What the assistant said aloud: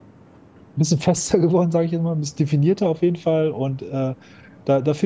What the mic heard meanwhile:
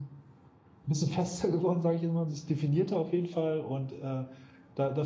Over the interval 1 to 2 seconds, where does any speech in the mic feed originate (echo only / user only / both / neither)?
echo only